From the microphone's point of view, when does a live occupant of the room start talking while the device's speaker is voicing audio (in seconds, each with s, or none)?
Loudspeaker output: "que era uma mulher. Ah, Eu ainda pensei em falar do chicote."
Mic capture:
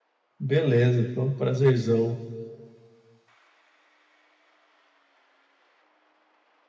0.4 s